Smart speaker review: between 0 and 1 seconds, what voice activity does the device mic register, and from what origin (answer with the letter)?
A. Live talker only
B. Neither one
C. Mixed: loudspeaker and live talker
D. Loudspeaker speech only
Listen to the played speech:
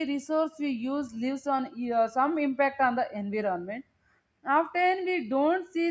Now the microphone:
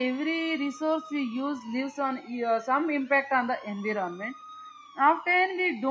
D